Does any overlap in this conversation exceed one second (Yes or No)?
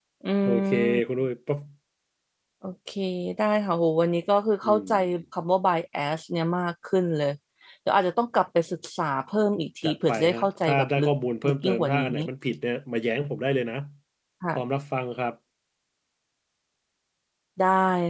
Yes